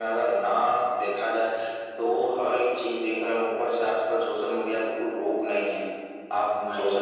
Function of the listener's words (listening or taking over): listening